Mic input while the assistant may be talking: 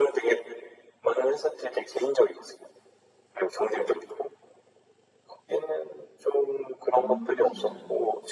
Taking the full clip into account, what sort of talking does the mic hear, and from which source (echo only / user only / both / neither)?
both